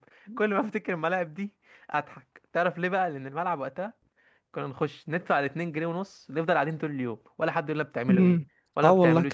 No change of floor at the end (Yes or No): No